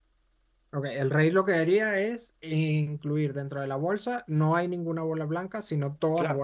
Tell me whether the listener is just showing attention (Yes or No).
No